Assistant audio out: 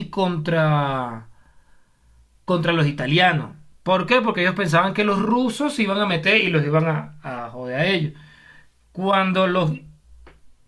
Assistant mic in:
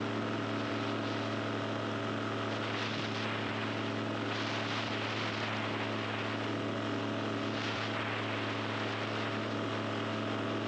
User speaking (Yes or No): No